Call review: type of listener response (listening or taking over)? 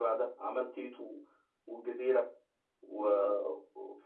listening